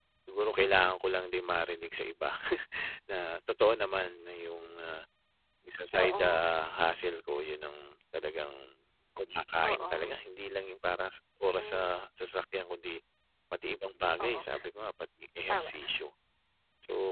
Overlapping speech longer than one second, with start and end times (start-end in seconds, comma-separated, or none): none